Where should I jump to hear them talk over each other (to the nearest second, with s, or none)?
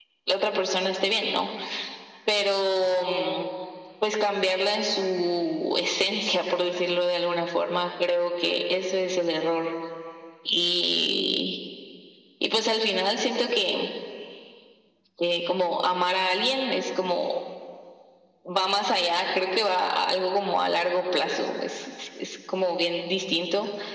none